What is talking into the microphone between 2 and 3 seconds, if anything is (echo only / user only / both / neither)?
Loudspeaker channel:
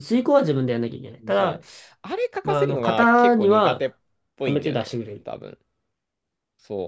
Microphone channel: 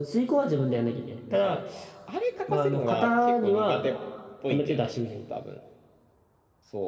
echo only